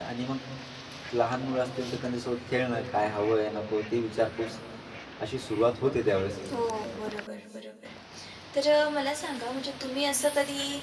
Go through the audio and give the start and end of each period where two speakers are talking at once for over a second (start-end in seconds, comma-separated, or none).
none